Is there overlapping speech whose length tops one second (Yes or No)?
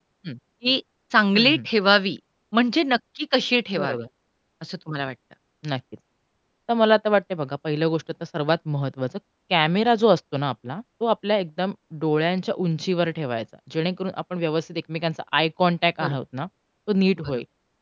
No